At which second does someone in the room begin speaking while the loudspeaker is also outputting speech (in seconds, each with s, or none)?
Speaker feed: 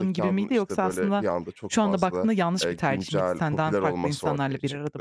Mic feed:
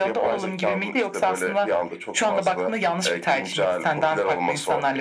none